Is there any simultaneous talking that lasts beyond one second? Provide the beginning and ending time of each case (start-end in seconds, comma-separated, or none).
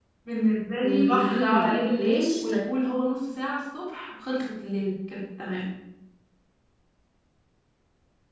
0.8-2.6